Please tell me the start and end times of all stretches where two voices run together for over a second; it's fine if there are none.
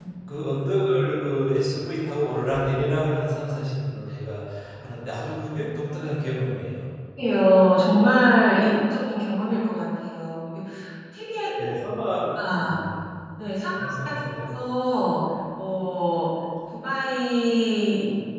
none

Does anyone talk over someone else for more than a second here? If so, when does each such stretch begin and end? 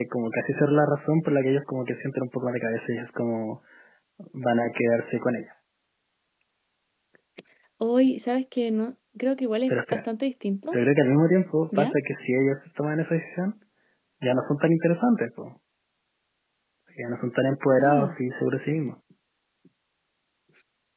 none

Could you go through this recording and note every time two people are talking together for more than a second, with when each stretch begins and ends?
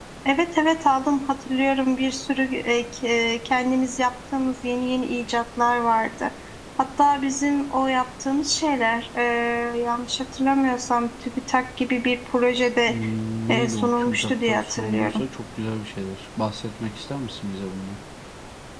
13.5-15.2

